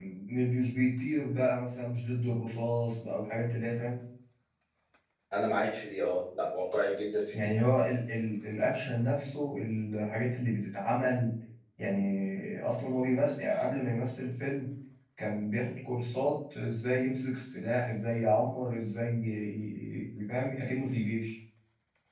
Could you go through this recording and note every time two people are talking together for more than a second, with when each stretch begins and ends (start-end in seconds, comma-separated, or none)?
none